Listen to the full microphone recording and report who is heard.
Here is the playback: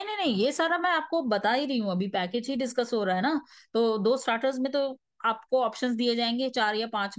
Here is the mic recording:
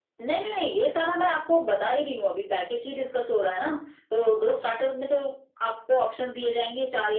echo only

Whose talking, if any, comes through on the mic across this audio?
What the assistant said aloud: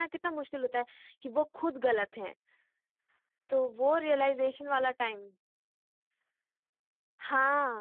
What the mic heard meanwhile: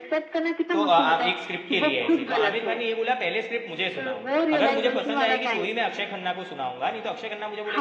both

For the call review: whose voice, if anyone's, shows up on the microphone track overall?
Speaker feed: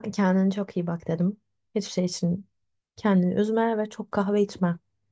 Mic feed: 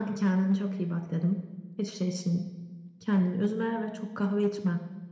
echo only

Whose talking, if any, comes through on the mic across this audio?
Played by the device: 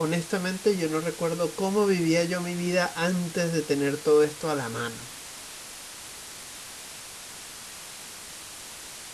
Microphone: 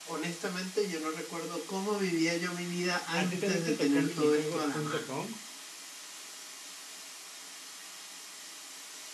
both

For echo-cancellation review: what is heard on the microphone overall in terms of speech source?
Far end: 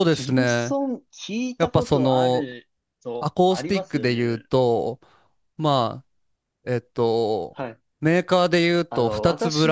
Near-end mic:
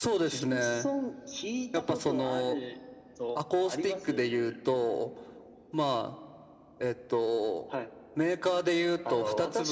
echo only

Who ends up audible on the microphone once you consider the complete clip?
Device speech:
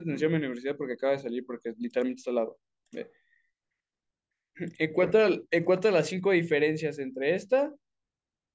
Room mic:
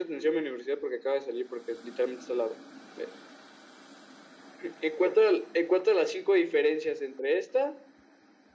echo only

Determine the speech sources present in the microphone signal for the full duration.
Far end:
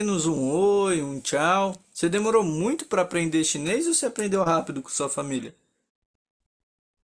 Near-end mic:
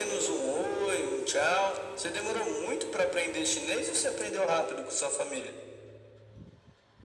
echo only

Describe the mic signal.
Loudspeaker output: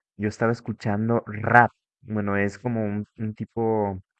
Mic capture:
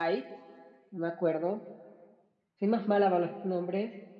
user only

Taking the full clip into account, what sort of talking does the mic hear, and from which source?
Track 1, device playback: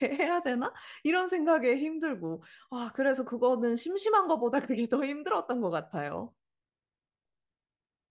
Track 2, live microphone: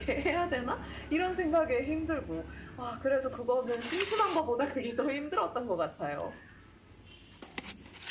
echo only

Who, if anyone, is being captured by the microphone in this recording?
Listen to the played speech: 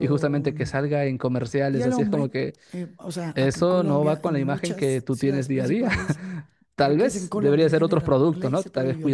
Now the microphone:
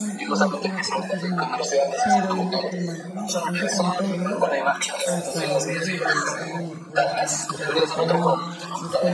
both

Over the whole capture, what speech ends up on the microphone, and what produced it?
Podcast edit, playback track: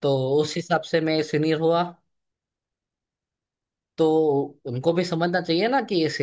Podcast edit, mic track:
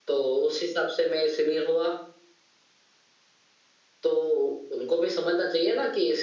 echo only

